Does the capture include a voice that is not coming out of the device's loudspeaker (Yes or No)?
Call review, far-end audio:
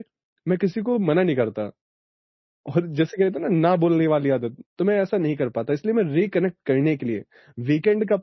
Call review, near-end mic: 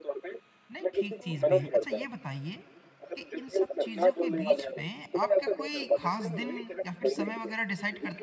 Yes